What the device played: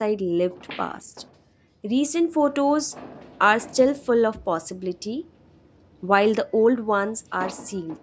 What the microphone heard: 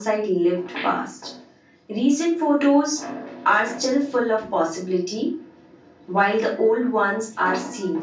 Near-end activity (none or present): none